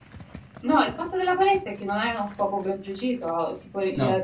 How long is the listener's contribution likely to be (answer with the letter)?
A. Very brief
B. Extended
A